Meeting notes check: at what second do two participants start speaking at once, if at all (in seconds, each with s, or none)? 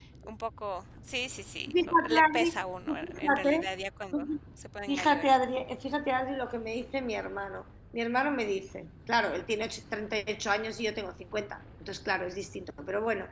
1.6 s